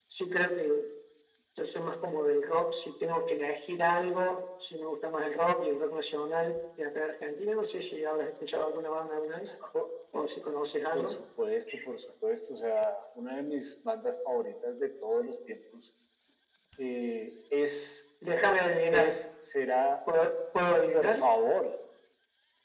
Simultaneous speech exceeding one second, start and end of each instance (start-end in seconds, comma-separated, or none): none